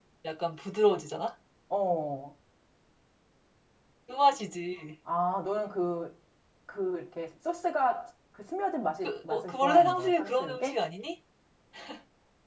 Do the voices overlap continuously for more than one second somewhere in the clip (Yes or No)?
Yes